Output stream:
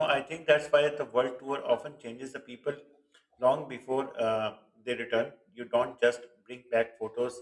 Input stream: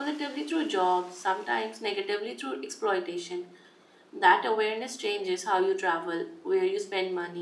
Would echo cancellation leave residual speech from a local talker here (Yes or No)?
Yes